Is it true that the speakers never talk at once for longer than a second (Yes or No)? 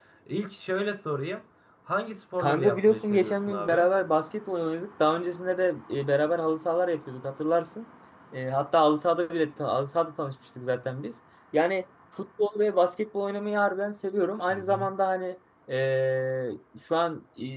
No